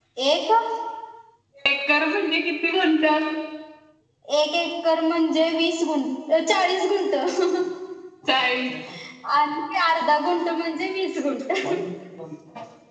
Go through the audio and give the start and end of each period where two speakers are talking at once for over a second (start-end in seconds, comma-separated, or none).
none